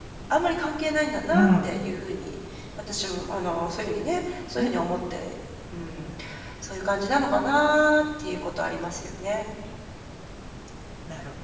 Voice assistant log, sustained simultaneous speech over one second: none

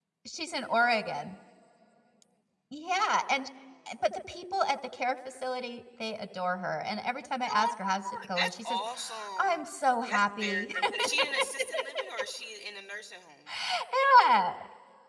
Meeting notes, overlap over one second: present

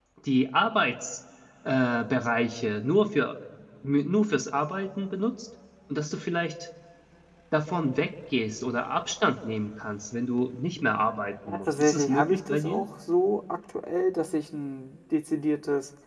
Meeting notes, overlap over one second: present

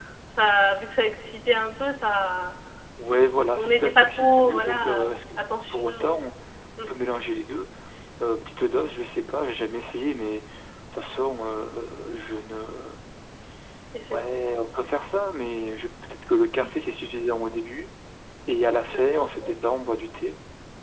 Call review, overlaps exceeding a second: present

